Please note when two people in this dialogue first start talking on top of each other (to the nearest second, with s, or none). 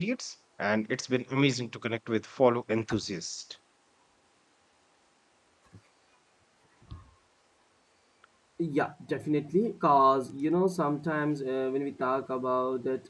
none